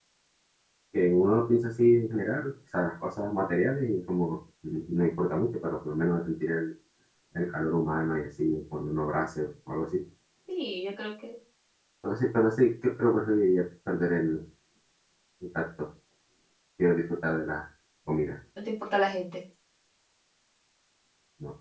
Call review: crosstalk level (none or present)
none